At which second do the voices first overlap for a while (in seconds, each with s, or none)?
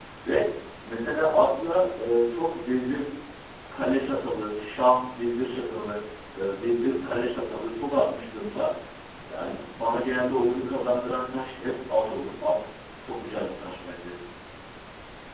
none